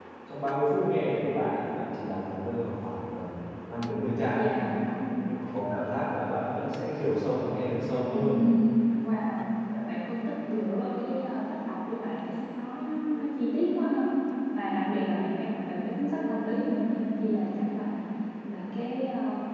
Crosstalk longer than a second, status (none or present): none